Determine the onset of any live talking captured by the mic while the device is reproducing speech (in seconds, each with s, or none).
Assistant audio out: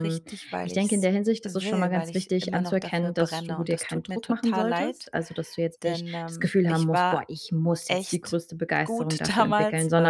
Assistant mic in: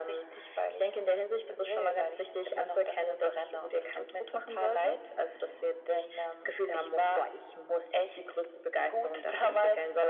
none